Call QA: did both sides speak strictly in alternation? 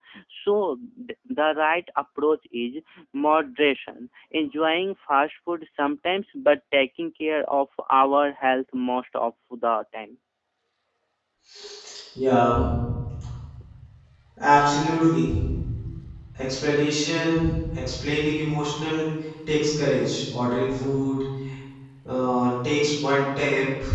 Yes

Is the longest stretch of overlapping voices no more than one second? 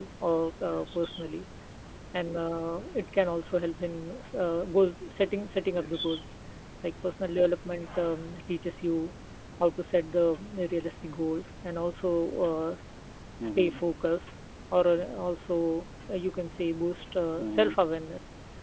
Yes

